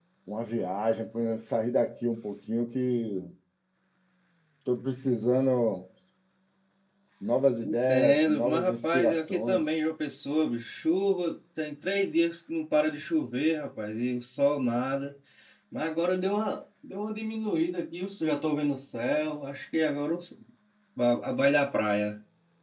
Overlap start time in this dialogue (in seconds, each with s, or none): 7.6 s